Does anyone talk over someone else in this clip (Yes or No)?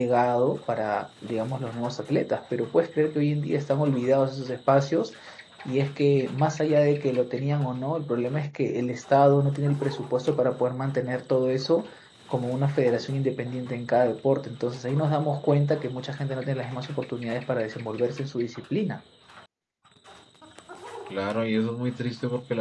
No